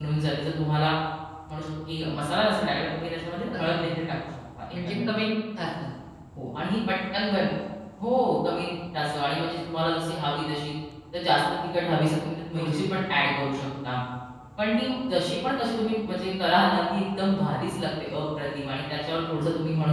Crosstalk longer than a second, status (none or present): none